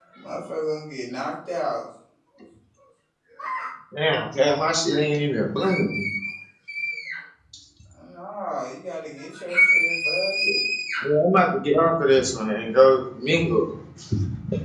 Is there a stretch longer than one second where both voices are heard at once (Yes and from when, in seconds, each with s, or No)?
No